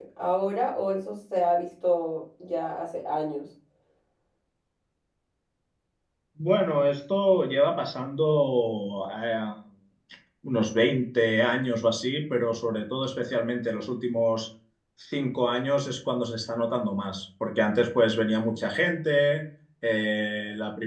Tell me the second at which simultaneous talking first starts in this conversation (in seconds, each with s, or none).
none